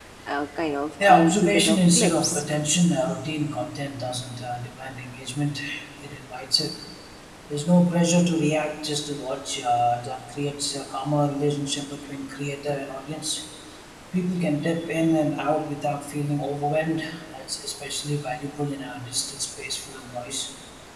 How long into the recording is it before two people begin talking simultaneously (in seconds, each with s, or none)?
1.0 s